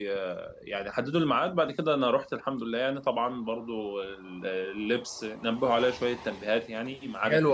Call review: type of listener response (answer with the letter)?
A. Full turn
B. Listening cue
A